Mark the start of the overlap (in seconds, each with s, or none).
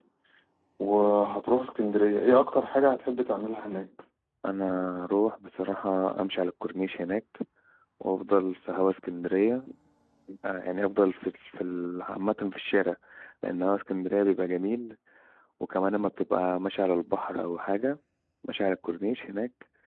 none